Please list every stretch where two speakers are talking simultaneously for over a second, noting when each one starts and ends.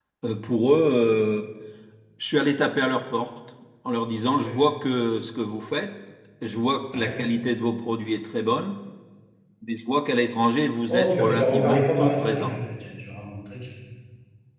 10.9-12.6

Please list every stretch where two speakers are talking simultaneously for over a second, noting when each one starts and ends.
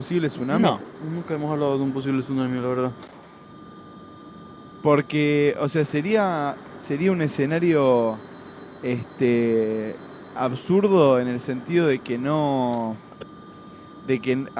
none

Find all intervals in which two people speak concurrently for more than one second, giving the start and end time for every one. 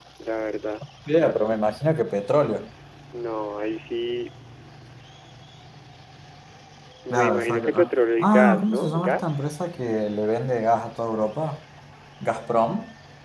7.1-9.4

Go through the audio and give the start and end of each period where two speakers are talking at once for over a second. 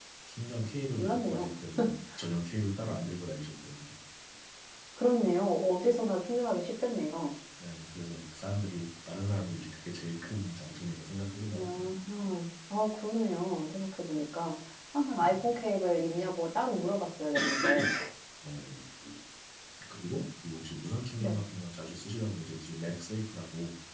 none

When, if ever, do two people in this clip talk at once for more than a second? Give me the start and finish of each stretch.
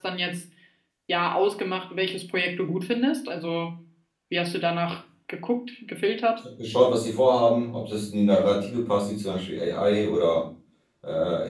none

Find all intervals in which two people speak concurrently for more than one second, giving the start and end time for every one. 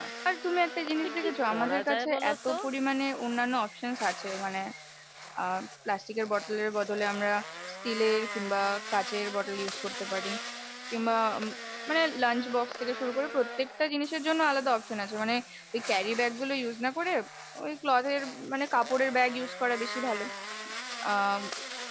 1.2-2.5

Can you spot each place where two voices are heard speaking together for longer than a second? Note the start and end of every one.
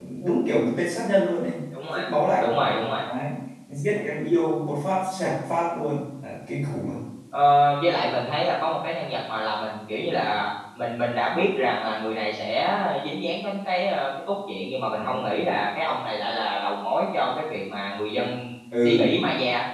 none

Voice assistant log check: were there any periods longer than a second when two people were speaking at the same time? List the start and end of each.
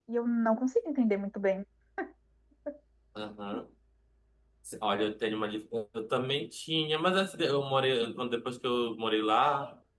none

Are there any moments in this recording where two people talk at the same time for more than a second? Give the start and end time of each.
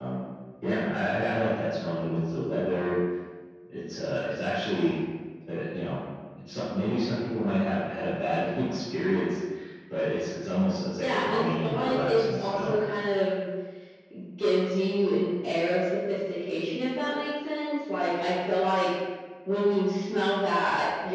11.0-12.8

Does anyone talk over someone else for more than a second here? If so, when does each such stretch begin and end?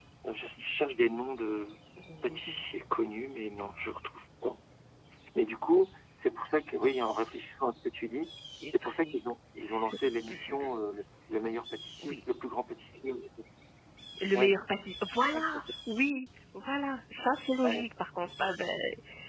none

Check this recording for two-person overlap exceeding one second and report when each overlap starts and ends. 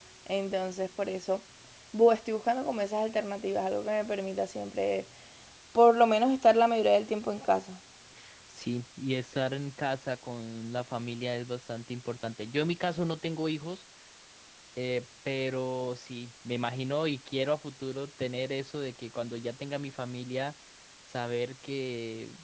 none

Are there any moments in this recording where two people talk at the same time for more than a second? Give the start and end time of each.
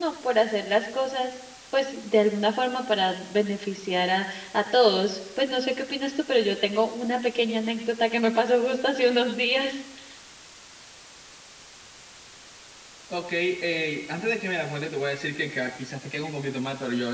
none

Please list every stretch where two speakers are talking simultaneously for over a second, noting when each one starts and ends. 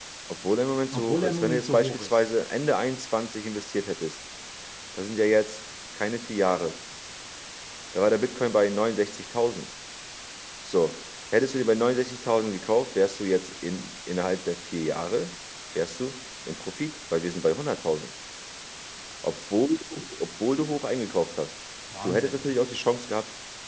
0.9-2.2

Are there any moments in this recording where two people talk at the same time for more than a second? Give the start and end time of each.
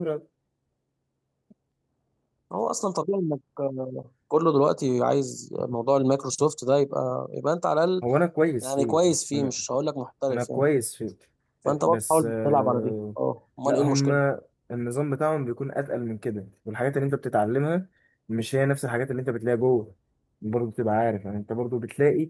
11.7-12.9

